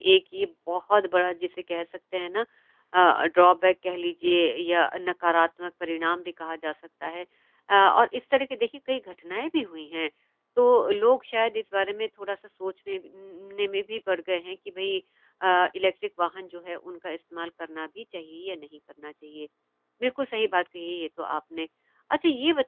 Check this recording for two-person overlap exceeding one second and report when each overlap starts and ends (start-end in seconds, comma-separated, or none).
none